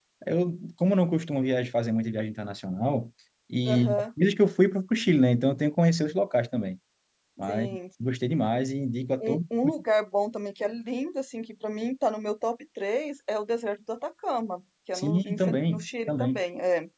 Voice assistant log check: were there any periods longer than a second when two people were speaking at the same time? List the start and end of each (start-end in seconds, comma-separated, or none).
14.9-16.4